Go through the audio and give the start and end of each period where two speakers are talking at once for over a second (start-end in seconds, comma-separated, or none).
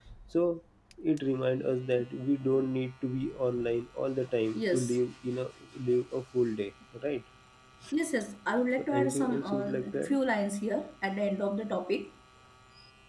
8.9-10.2